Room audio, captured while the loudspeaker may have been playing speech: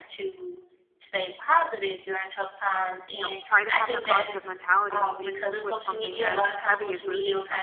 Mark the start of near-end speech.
3 s

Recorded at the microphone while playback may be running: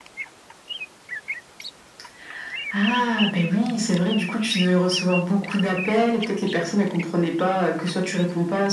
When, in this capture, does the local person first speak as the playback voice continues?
none

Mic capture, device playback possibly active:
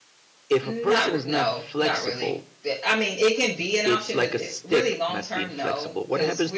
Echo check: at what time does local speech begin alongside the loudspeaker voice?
1 s

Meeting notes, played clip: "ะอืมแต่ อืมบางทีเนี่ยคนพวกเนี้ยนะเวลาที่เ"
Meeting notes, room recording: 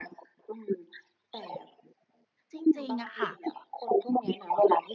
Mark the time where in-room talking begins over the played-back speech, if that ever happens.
3 s

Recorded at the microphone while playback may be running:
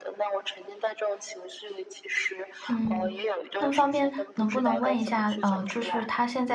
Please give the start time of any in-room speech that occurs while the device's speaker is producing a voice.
3 s

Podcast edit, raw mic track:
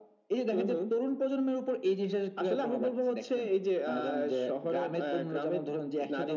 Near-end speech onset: none

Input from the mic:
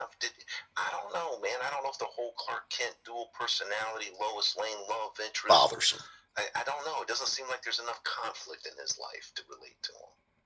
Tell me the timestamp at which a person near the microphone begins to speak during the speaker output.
5 s

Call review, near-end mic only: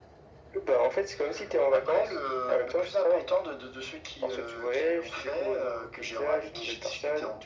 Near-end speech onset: none

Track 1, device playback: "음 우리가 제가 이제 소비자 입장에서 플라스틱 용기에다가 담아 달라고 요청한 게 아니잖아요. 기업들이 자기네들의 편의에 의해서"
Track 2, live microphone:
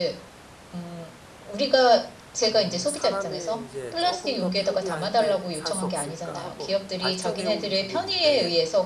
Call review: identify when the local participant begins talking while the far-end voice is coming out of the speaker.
3 s

